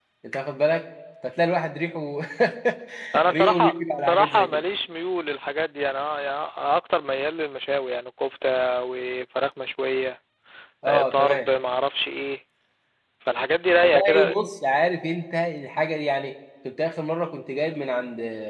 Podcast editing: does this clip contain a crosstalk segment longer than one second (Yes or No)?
Yes